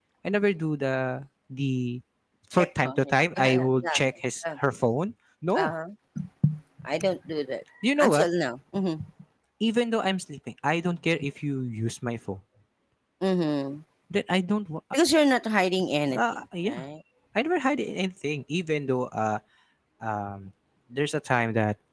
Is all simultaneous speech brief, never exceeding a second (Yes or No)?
No